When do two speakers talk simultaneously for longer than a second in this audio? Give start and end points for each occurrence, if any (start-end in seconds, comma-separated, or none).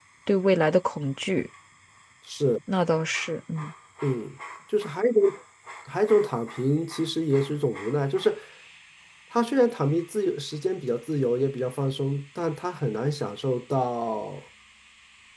none